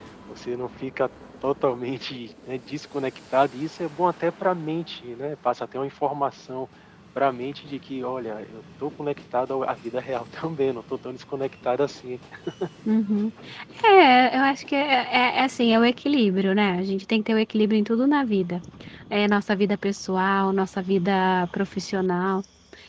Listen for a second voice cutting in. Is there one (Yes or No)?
No